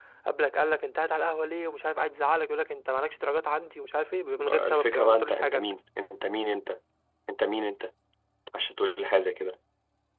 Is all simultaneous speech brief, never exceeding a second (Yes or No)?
No